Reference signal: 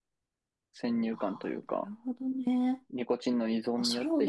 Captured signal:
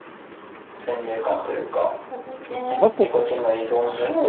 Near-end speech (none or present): present